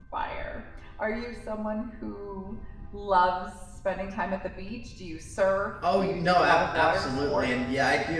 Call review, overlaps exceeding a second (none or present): present